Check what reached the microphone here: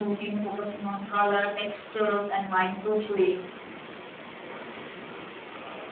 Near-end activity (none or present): none